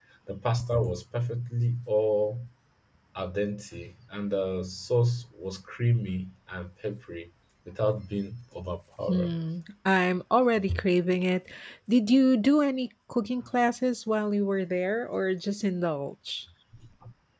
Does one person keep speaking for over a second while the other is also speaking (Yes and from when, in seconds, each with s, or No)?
No